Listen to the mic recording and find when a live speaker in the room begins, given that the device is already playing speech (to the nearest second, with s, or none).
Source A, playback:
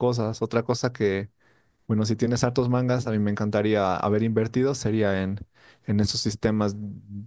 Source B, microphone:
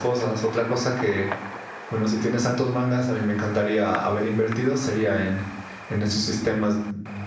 none